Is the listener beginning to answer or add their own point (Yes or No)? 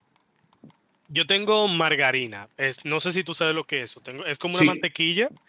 No